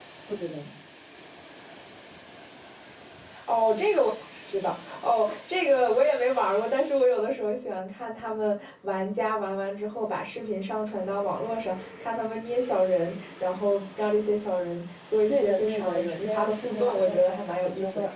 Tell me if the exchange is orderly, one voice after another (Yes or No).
No